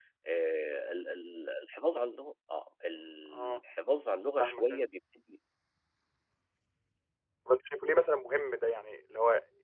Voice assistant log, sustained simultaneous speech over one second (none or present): none